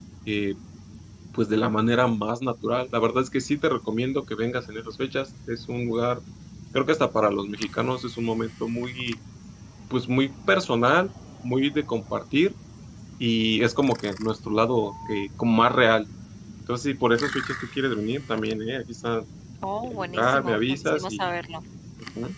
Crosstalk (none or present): present